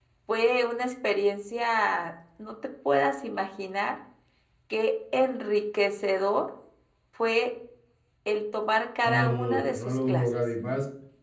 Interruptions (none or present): present